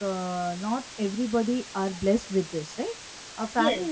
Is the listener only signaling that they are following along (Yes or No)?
Yes